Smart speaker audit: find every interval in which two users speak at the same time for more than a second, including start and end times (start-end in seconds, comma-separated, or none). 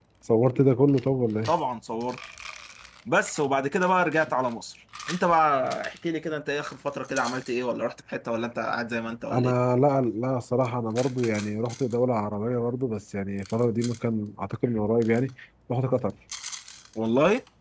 none